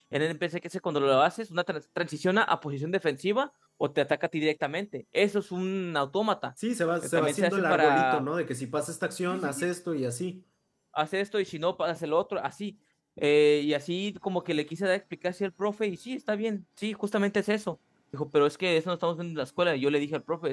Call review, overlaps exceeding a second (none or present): present